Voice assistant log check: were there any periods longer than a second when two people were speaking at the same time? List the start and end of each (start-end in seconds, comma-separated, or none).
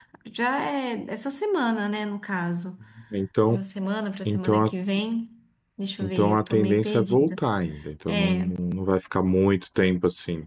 6.0-7.4